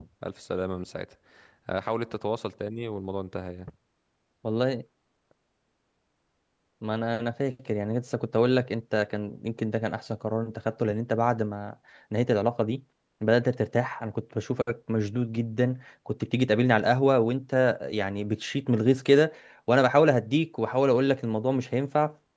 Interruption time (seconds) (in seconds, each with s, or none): none